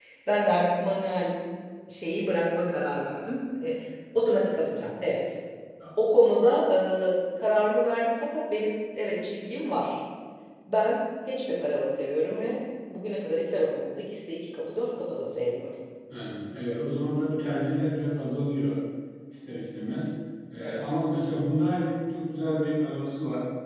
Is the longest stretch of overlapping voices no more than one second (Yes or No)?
Yes